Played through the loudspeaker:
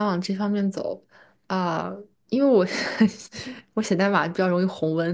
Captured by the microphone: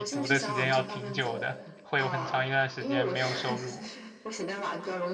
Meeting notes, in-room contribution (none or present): present